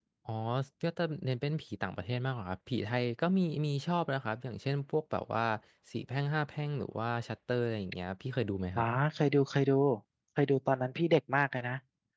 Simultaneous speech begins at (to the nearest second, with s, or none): none